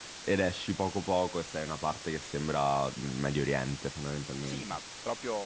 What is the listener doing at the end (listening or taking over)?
taking over